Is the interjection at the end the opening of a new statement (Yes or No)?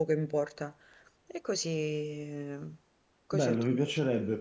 Yes